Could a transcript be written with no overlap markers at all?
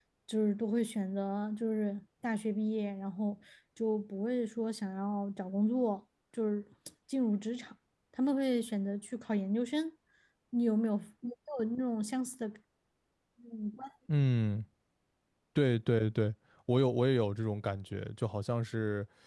Yes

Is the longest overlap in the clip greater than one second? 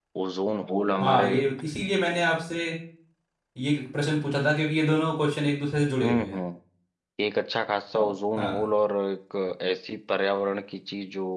No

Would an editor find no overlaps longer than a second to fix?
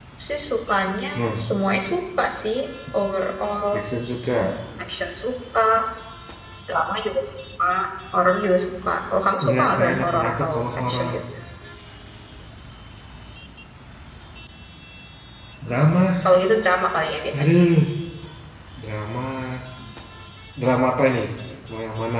No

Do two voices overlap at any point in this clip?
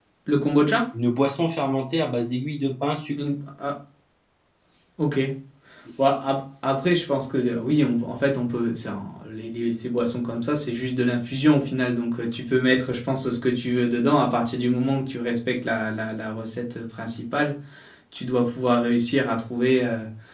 No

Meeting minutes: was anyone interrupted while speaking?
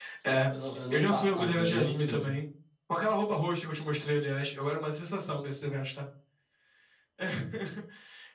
Yes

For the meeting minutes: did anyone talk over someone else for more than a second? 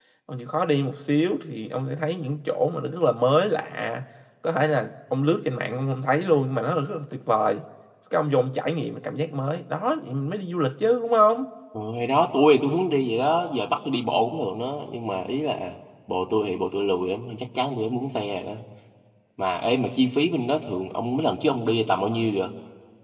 No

